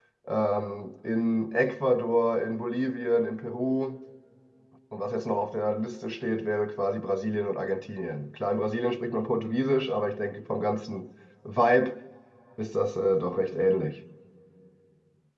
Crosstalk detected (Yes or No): No